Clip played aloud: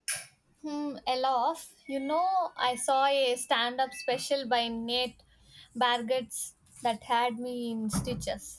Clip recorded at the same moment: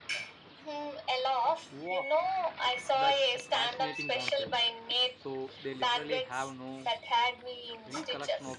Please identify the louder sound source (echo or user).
echo